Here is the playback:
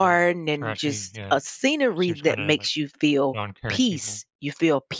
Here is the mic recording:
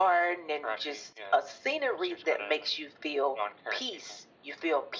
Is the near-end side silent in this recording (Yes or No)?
Yes